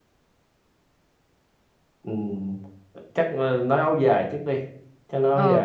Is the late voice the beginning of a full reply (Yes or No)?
Yes